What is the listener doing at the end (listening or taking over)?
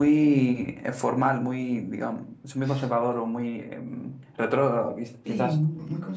taking over